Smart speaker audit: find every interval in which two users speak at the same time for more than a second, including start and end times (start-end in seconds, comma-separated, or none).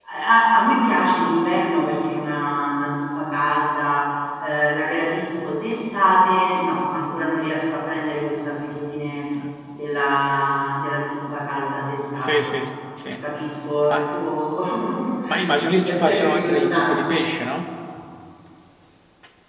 15.8-17.2